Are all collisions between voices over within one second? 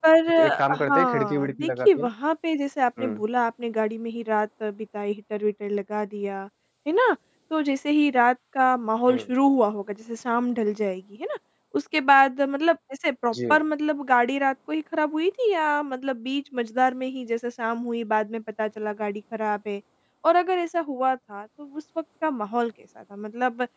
No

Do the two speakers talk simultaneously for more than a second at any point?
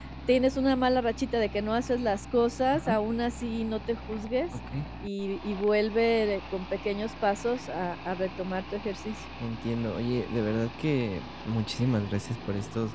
No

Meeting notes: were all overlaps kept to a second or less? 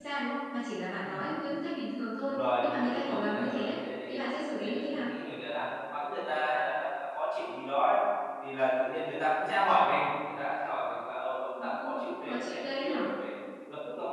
No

